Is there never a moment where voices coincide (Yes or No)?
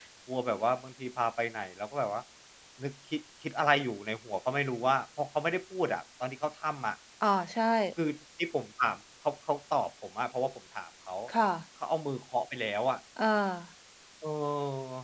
Yes